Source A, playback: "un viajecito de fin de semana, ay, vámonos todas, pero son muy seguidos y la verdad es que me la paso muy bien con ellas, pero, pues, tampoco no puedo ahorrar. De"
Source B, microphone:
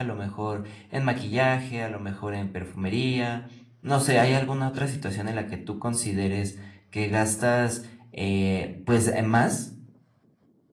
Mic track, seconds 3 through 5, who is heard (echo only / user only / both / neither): user only